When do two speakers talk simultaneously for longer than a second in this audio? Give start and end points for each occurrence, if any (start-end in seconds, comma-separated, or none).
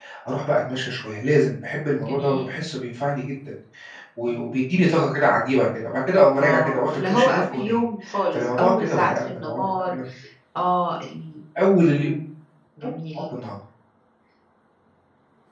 6.4-7.8, 8.3-10.0